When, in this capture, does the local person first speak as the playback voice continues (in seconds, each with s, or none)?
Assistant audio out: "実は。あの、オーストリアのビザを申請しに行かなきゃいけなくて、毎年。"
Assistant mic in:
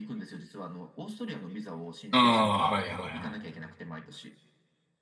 2.1 s